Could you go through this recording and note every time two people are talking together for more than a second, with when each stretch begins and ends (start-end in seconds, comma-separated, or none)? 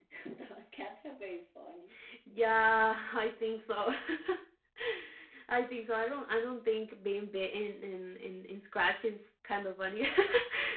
none